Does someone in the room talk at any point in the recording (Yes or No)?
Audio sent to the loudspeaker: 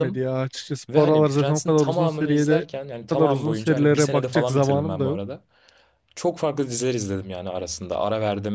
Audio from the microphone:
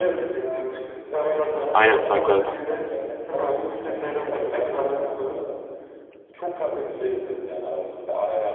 Yes